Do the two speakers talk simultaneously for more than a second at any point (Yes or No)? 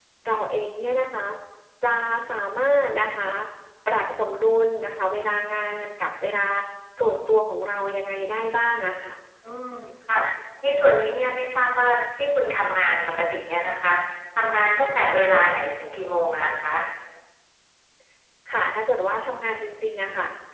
No